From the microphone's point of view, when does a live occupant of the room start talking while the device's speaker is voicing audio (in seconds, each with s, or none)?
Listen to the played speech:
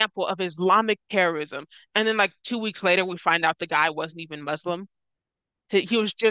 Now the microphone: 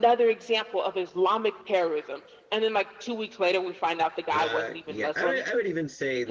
4.3 s